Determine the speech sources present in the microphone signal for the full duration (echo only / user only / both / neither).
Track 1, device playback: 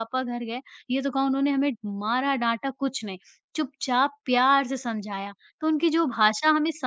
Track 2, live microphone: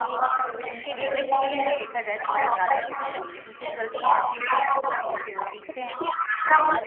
both